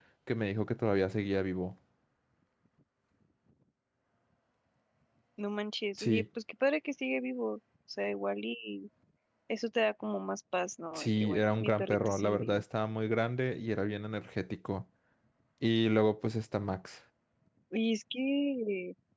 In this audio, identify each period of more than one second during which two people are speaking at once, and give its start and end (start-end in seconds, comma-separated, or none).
10.9-12.6